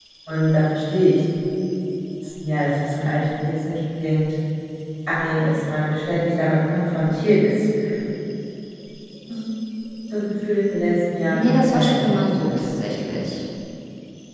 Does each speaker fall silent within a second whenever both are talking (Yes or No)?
No